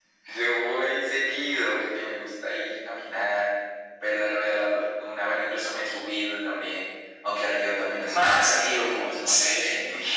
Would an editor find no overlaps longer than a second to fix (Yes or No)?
No